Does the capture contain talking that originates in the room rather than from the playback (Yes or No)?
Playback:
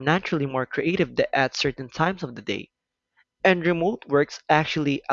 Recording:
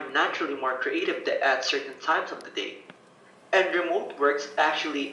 No